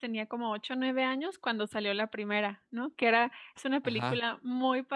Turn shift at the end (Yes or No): No